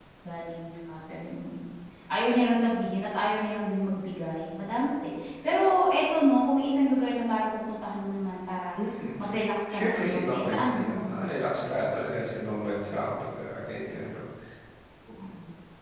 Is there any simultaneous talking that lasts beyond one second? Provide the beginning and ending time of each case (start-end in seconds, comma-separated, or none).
9.7-11.1